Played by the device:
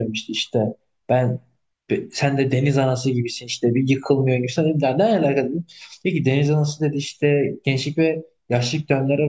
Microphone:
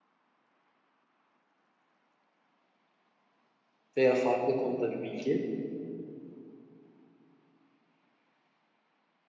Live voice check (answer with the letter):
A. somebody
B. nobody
A